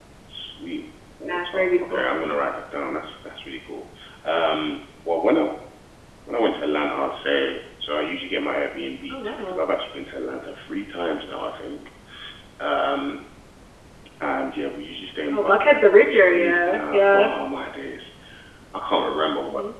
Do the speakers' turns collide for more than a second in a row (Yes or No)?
Yes